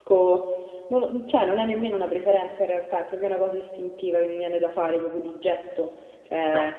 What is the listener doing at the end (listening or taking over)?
listening